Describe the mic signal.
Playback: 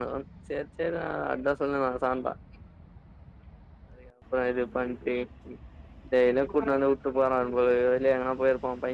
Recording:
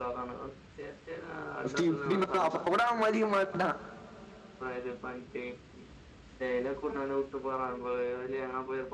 both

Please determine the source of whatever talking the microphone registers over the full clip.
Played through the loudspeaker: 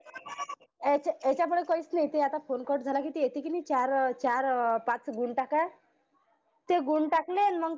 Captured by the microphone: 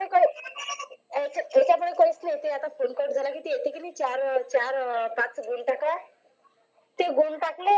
echo only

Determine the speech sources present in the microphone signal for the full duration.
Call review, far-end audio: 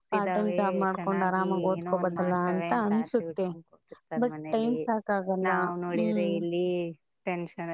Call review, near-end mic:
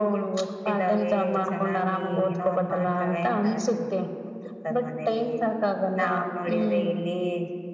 echo only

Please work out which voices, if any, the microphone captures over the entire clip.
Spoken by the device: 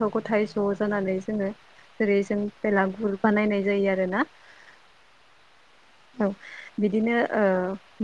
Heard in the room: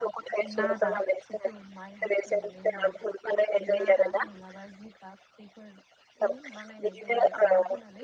both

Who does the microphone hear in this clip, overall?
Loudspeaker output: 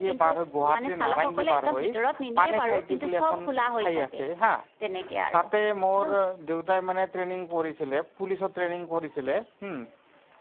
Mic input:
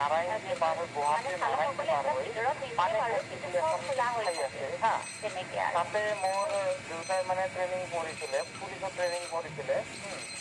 echo only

